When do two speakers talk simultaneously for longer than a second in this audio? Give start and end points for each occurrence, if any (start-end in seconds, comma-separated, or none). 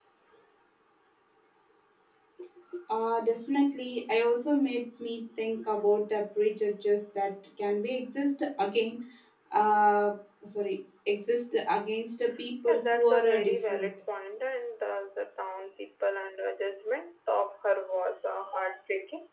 12.7-13.9